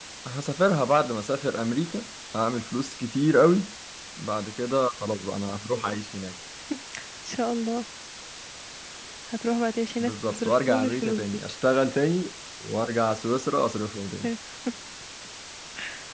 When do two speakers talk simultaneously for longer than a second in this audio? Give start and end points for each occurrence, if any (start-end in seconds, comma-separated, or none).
10.0-11.4